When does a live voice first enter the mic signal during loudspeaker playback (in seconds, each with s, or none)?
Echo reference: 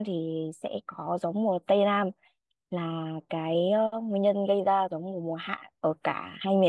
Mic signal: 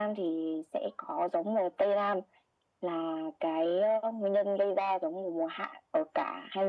none